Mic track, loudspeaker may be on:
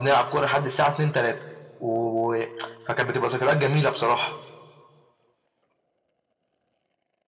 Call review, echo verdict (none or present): present